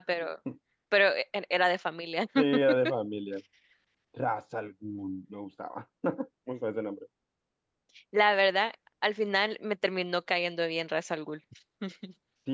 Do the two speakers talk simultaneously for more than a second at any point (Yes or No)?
No